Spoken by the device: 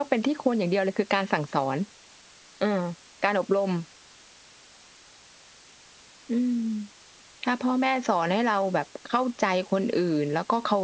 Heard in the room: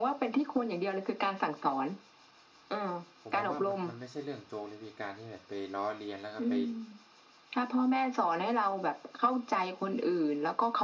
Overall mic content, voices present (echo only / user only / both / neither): both